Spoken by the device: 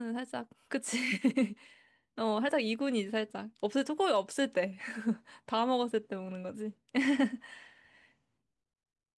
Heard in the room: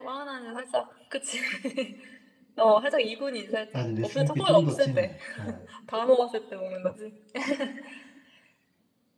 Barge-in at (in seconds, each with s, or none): 3.7 s